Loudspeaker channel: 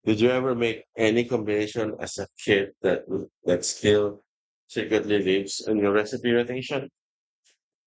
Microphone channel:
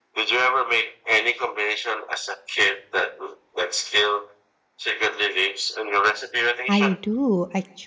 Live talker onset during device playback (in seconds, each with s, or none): 6.7 s